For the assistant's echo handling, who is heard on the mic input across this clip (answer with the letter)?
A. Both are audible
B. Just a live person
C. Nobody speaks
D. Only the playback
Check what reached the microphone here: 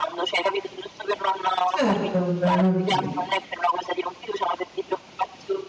A